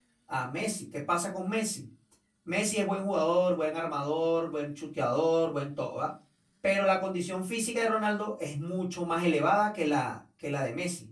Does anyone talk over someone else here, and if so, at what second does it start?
none

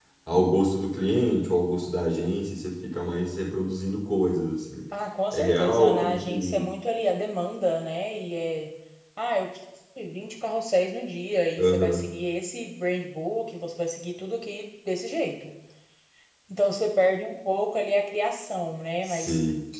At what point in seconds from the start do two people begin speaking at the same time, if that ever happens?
5.3 s

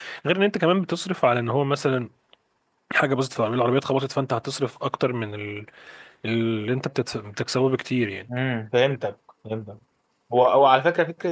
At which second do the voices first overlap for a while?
none

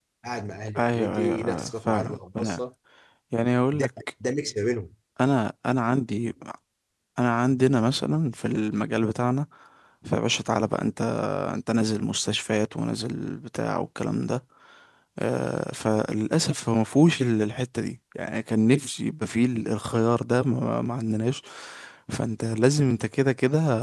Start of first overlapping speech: 0.8 s

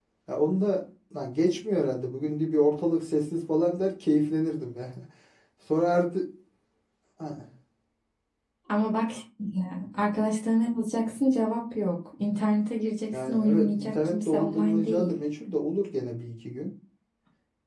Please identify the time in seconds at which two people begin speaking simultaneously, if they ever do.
13.1 s

